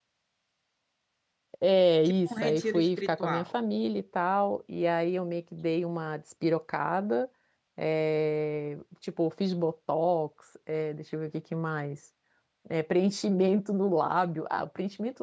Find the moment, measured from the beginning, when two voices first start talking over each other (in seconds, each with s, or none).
2.3 s